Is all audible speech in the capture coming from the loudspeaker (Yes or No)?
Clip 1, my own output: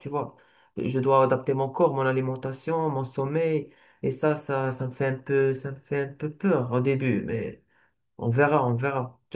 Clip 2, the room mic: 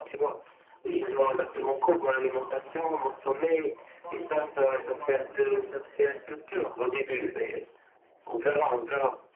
No